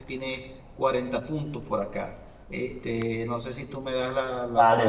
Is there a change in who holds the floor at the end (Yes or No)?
Yes